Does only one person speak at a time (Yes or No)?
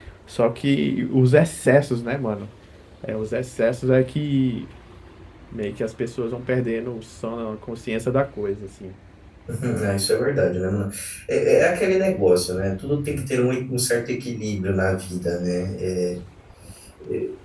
Yes